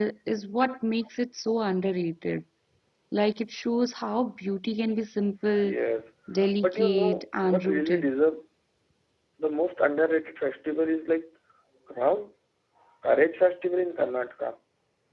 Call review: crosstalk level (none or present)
present